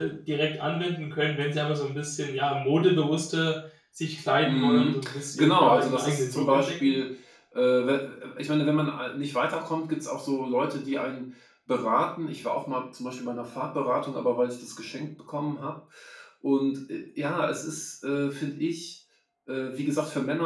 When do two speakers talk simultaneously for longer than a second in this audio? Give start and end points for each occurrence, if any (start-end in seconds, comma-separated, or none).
4.4-7.0